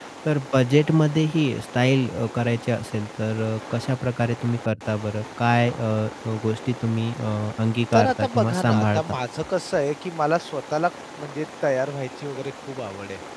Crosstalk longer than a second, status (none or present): present